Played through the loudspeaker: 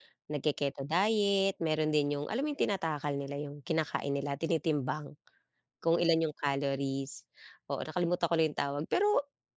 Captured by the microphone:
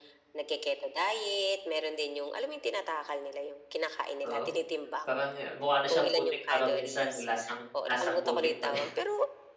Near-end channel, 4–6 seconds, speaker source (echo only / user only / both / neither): both